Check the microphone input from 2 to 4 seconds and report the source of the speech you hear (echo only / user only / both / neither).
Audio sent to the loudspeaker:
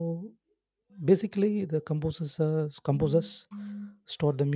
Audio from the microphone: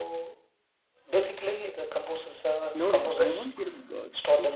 both